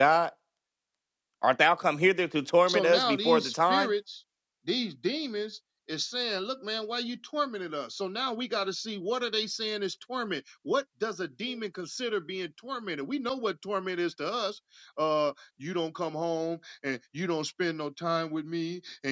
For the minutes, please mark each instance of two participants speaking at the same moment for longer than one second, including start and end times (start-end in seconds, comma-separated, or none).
2.7-3.9